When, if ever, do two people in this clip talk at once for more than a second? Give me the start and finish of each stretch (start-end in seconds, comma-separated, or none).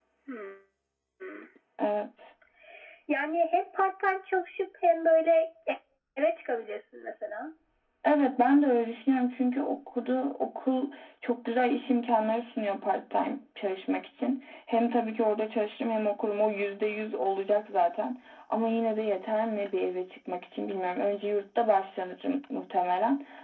none